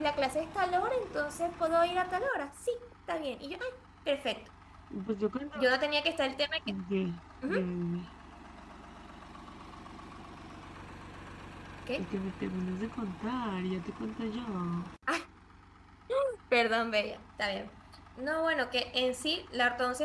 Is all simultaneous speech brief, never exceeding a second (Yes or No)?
Yes